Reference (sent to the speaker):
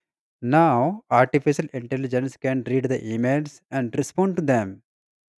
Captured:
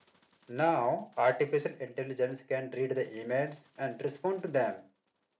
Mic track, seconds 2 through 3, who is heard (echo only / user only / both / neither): echo only